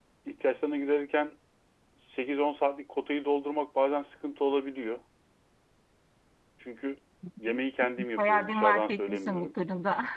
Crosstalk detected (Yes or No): Yes